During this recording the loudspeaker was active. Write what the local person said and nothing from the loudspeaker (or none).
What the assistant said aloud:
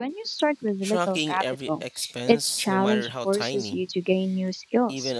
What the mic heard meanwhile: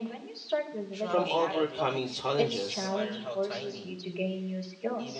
from overcoming challenges,